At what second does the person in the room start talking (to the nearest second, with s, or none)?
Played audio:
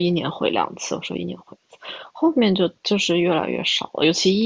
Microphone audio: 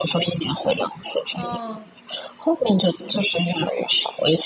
1 s